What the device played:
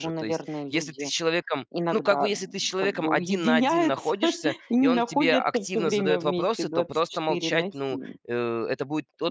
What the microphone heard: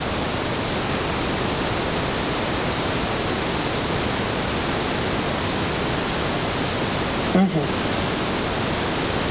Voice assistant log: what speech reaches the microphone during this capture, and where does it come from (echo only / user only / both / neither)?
user only